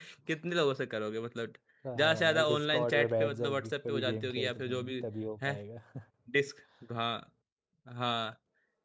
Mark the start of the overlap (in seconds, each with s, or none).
2.0 s